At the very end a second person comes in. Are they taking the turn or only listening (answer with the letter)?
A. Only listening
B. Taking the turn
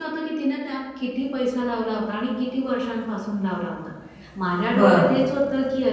A